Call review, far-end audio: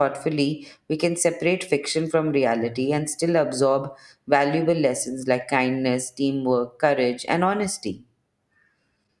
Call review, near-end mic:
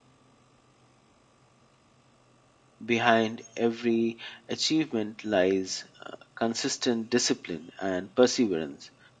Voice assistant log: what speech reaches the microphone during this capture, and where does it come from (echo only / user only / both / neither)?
user only